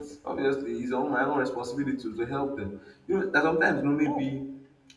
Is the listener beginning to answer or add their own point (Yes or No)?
No